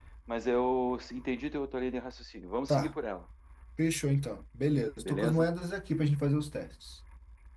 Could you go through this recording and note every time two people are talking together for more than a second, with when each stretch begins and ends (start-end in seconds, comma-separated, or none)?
none